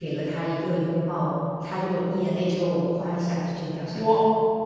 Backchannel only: No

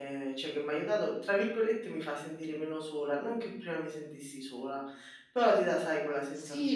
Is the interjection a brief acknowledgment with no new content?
No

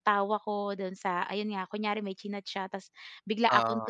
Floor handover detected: No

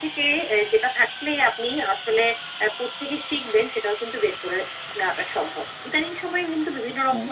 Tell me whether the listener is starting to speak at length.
No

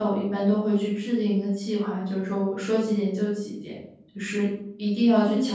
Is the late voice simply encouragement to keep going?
No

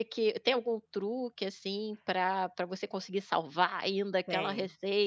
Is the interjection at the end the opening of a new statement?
No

